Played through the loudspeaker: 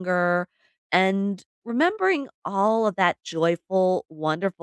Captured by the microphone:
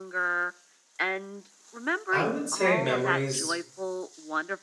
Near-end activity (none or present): present